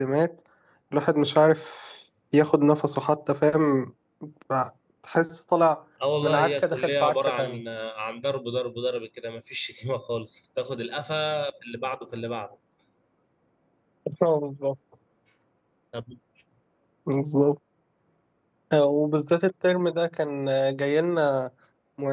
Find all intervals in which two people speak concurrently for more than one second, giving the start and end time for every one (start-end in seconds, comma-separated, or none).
6.2-7.6